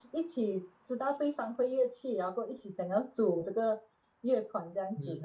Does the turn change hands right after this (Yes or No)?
Yes